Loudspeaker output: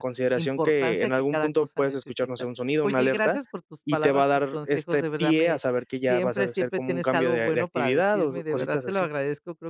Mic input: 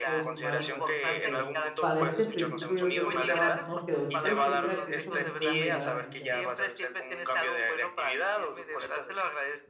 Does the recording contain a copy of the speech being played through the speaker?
Yes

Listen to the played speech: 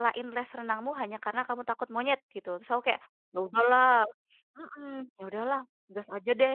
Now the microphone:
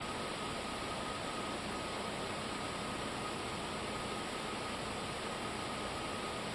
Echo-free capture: Yes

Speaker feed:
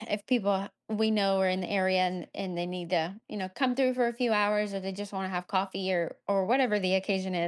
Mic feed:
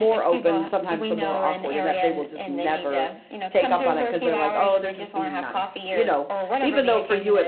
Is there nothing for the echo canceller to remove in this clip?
No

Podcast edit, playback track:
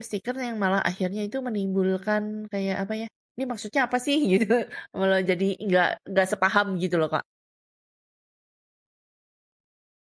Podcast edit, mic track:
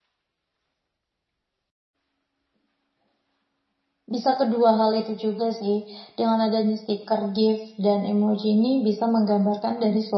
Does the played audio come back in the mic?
No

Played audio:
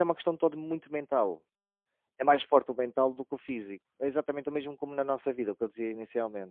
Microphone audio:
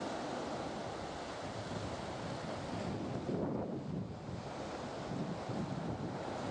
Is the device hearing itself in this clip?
No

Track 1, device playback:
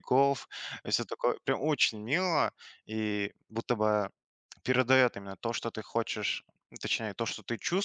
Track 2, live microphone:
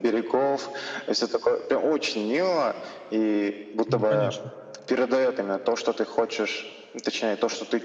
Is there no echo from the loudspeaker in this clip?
No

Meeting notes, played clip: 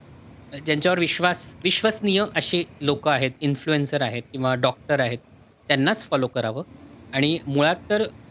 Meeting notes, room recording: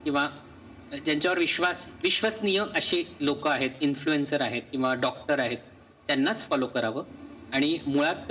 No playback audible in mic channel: No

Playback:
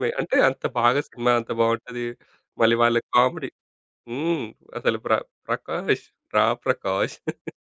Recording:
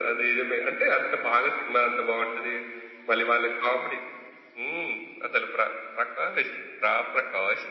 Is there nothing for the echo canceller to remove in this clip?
No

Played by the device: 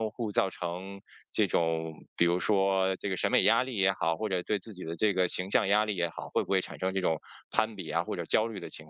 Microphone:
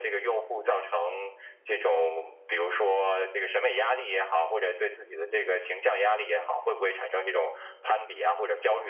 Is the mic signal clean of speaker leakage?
No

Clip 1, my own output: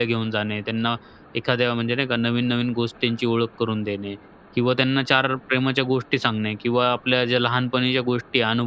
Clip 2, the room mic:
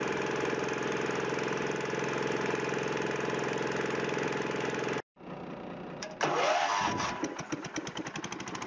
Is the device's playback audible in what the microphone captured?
No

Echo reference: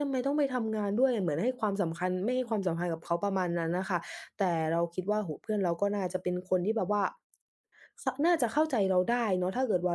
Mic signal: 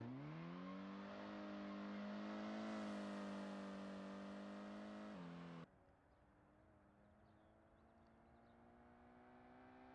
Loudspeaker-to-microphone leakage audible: No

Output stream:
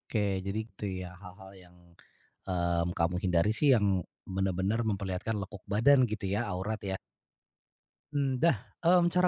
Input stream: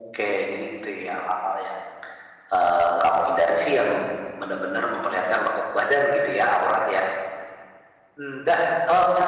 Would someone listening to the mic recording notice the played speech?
Yes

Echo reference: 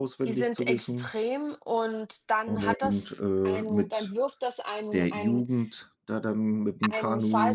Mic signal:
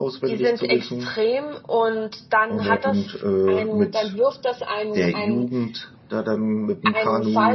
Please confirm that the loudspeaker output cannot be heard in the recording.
No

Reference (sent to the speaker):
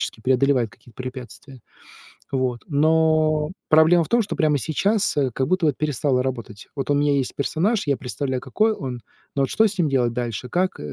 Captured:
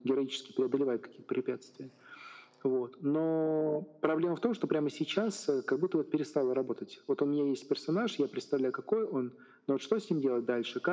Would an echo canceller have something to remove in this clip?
Yes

